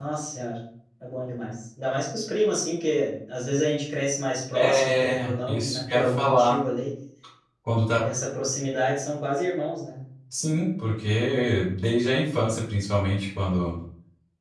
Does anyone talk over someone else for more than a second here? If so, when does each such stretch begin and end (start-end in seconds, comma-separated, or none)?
4.5-6.6